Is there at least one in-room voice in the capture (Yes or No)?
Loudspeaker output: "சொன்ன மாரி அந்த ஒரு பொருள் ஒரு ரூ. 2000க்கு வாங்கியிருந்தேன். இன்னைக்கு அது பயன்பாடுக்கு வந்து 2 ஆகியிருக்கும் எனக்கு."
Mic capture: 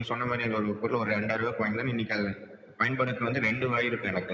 No